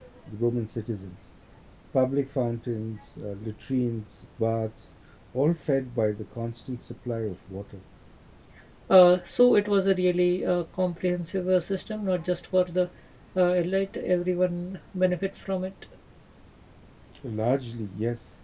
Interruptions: none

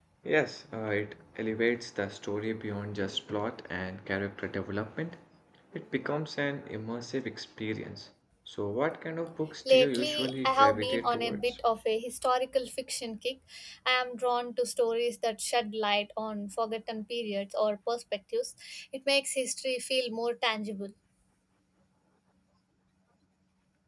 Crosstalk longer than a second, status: present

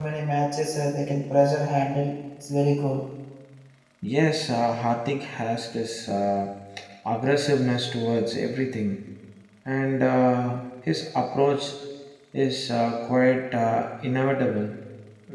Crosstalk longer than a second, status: none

